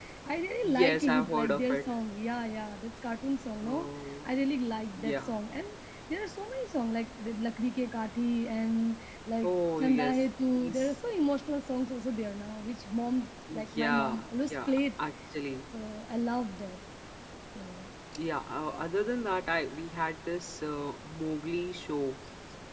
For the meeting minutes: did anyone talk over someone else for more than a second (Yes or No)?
Yes